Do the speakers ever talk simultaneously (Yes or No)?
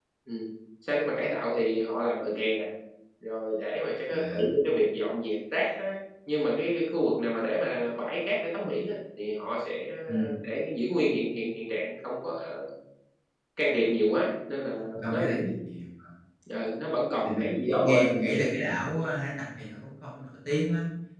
Yes